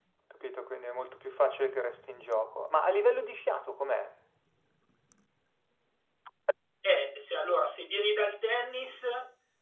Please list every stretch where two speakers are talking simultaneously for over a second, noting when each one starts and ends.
none

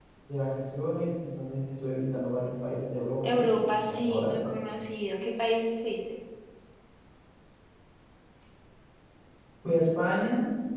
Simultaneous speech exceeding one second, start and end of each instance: 3.2-4.6

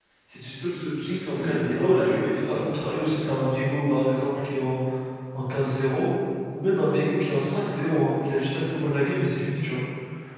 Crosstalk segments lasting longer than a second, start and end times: 1.4-2.6

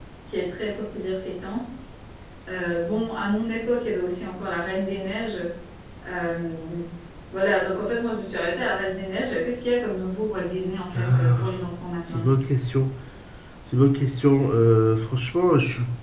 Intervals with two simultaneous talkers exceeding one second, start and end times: none

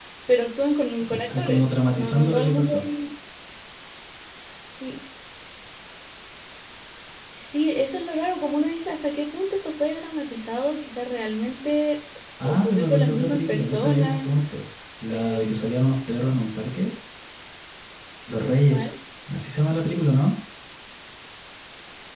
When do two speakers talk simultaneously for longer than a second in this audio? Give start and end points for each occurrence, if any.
1.4-2.8, 12.4-14.3

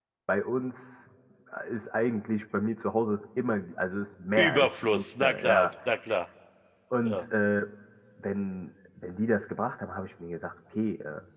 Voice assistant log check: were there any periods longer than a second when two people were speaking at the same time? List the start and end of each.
4.5-5.7

